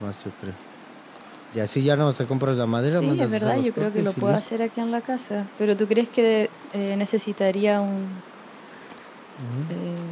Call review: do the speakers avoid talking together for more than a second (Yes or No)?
No